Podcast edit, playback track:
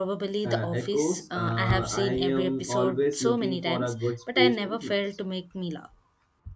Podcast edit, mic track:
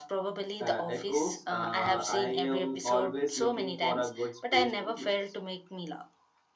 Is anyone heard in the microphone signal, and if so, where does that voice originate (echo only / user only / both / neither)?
echo only